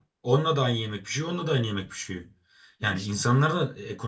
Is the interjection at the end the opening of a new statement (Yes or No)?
No